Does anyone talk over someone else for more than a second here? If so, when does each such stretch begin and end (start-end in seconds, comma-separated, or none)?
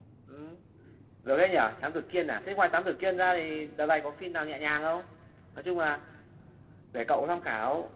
none